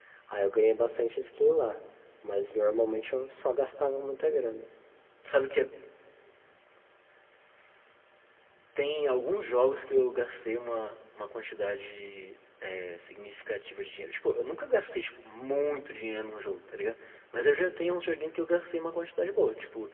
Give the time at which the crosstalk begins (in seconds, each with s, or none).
none